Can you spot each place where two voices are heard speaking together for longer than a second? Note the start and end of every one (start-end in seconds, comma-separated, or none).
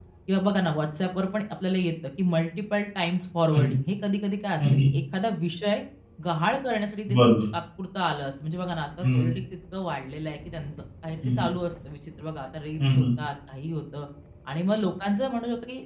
none